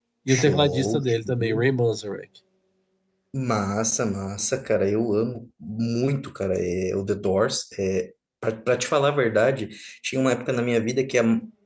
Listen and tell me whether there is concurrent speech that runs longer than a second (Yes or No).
Yes